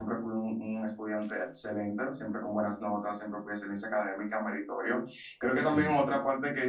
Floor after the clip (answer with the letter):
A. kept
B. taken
A